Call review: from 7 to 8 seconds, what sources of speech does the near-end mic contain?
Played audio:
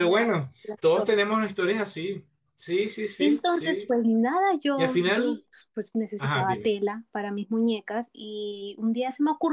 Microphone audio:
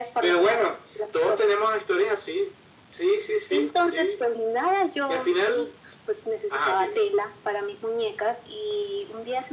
echo only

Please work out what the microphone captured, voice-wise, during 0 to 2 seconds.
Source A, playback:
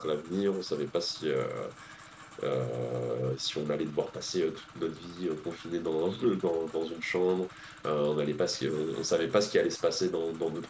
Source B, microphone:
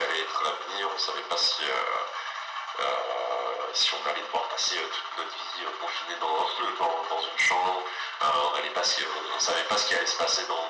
echo only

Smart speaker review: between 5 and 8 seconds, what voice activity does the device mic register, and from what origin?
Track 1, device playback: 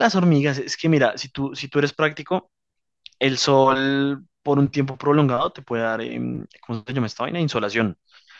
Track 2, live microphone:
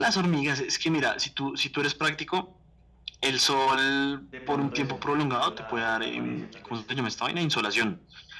both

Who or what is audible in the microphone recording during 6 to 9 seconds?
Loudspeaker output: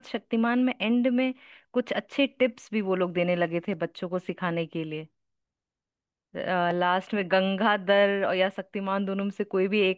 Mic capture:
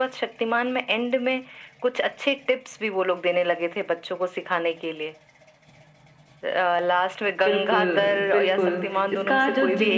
both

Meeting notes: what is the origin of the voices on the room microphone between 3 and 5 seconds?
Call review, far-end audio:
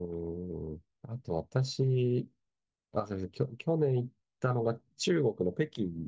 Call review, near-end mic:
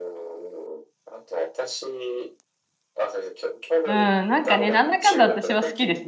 both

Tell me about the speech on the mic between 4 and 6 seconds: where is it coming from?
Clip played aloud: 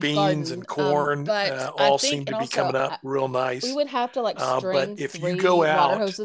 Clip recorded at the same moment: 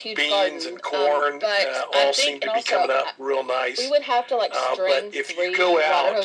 echo only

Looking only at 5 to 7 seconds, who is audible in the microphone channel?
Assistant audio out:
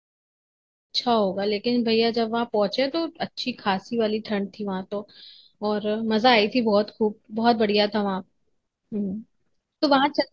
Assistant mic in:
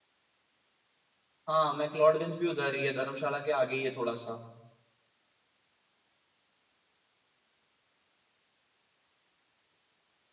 neither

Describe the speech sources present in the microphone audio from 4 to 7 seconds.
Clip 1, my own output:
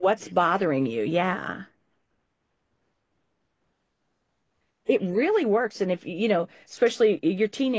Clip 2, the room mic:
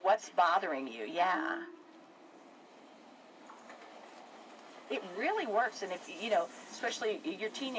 echo only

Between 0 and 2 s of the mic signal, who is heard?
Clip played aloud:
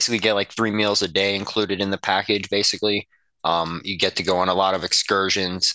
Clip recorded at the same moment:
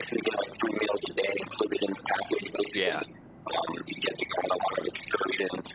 echo only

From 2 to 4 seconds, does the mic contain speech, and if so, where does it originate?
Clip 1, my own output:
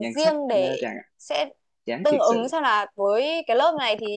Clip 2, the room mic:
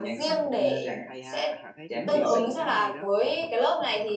both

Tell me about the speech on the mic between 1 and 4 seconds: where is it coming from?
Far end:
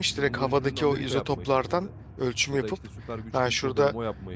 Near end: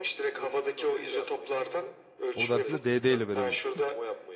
both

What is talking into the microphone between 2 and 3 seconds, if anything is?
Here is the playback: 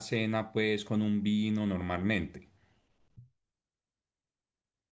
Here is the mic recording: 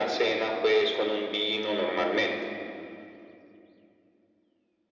echo only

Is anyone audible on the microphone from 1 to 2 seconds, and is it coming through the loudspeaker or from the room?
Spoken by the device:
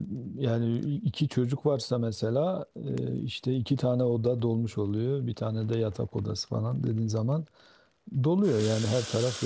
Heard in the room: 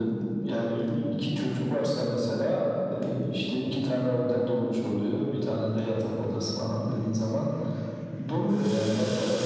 echo only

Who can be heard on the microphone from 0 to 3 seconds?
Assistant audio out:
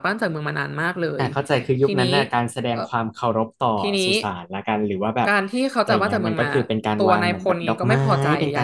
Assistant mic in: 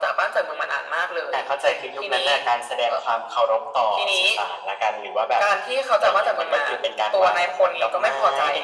echo only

